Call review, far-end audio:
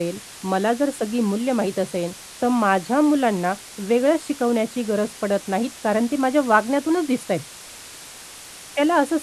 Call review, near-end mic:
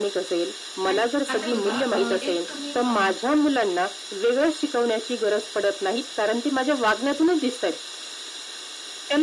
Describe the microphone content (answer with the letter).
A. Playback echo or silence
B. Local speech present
B